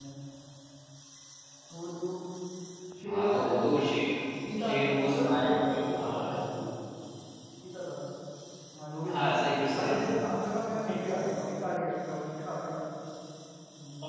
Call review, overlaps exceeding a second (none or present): present